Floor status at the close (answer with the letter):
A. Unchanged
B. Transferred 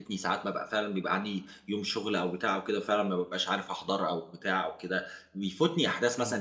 A